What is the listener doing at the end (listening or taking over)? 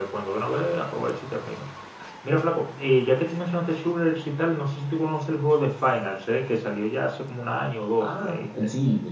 taking over